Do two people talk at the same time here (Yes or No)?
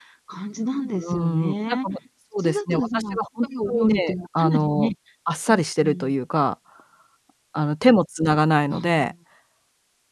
Yes